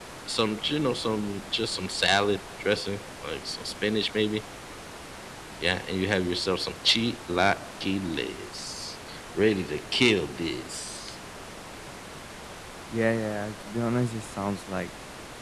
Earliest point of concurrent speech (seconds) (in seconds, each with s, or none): none